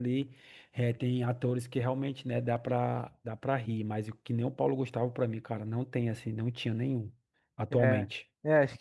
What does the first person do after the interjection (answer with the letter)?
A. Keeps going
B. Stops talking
B